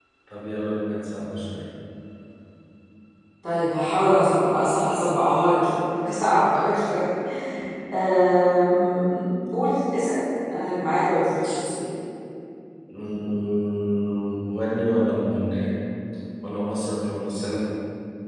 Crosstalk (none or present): none